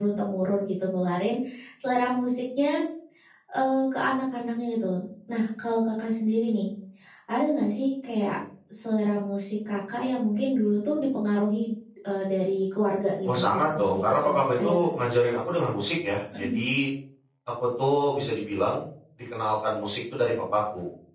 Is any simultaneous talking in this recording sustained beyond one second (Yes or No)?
Yes